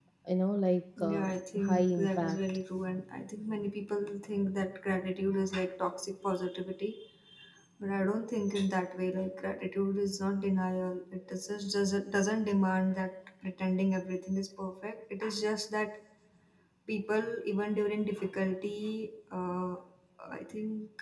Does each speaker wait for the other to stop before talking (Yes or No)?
No